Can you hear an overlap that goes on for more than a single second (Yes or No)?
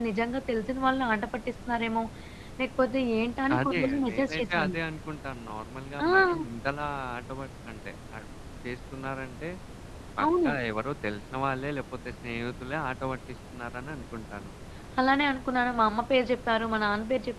Yes